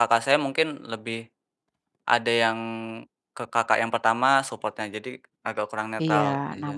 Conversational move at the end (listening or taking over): taking over